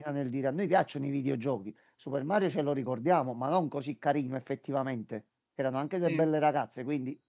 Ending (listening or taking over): listening